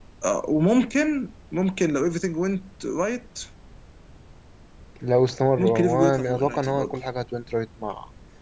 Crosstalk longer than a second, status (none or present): present